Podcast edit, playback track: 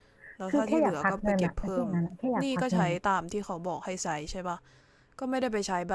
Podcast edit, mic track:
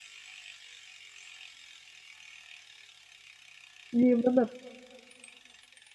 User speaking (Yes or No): Yes